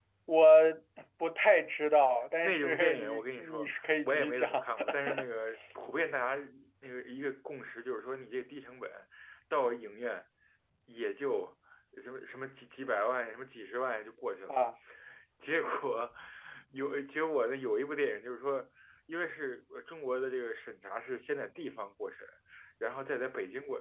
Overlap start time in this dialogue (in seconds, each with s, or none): 2.4 s